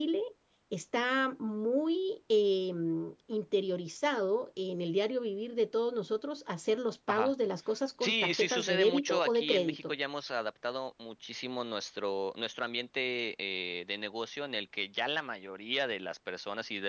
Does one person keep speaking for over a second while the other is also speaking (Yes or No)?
Yes